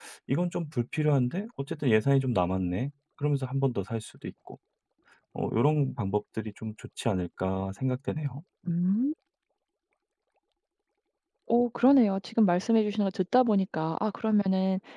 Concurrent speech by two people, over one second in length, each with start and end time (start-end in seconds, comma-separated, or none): none